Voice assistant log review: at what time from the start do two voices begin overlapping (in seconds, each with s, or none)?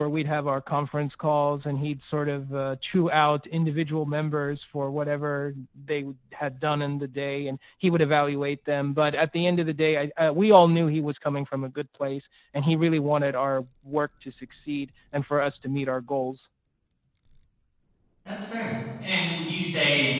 none